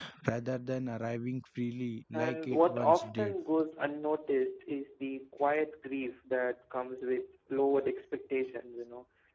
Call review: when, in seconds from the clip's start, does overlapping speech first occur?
2.1 s

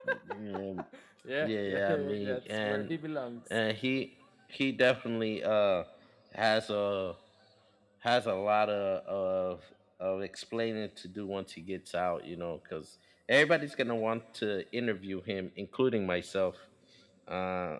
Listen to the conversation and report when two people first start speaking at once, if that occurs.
1.4 s

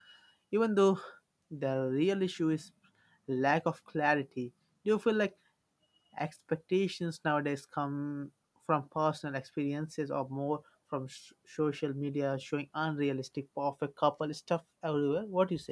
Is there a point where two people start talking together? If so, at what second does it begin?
none

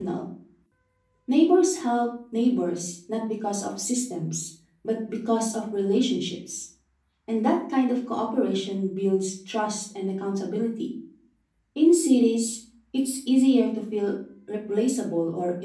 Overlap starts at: none

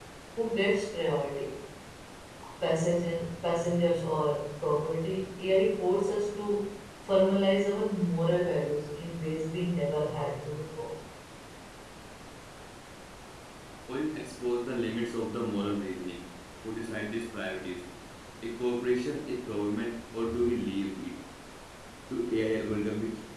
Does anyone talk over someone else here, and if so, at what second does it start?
none

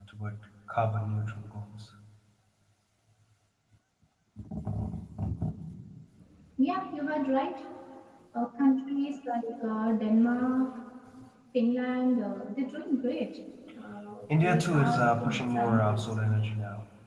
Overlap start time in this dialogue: 14.3 s

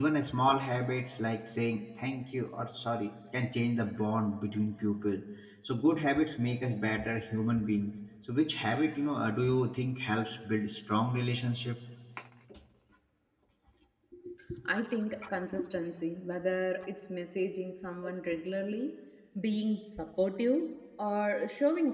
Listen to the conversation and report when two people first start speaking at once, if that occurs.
none

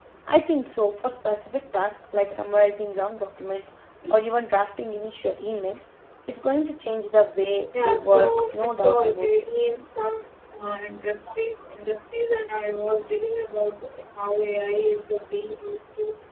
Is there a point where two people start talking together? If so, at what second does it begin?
7.7 s

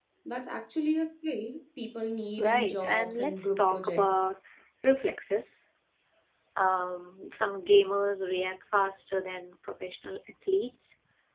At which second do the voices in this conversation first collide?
2.4 s

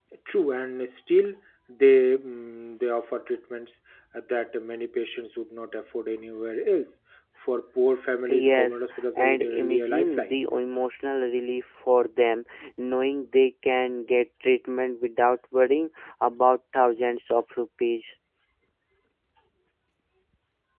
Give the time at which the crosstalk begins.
8.1 s

